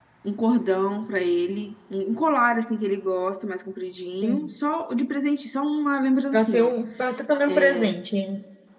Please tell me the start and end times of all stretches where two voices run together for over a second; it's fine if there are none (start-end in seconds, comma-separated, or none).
none